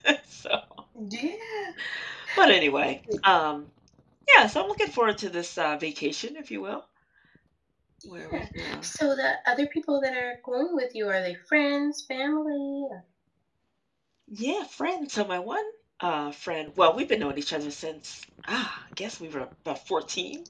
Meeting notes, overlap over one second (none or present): none